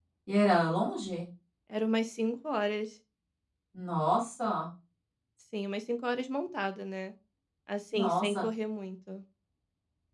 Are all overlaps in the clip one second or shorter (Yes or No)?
Yes